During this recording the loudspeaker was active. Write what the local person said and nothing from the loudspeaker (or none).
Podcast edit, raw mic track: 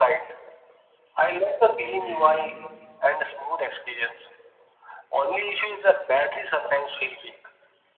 Okay.